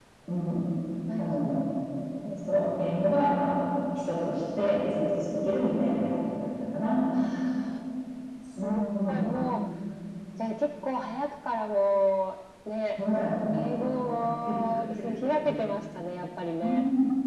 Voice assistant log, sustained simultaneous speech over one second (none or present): present